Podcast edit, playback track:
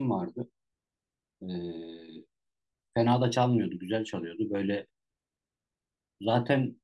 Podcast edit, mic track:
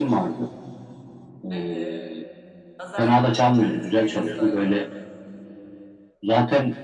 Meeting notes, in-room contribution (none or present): present